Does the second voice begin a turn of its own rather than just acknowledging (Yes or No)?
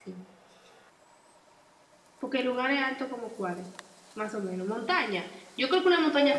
Yes